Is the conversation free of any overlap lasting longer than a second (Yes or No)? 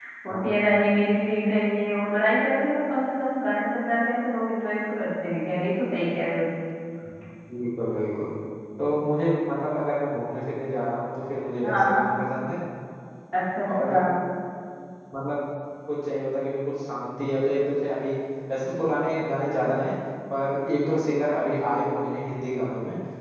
Yes